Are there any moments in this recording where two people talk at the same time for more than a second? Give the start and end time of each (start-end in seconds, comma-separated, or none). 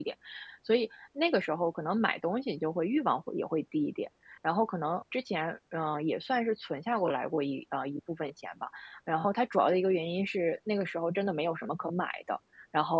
none